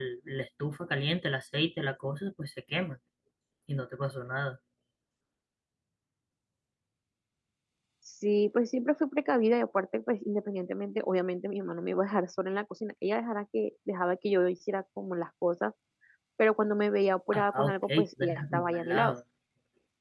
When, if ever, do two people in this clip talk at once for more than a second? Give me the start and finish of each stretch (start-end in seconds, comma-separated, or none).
17.3-19.2